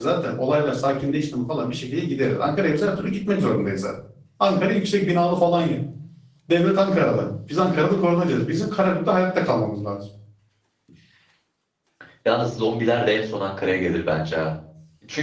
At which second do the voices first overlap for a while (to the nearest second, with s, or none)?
none